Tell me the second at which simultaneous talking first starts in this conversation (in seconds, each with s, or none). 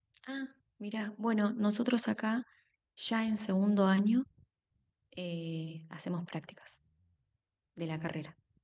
none